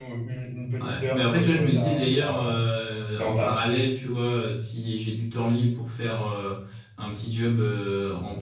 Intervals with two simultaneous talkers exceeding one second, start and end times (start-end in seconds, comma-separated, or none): 0.8-2.5